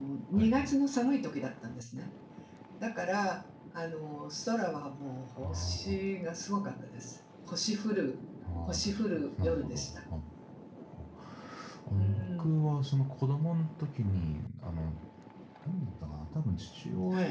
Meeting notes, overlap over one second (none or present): present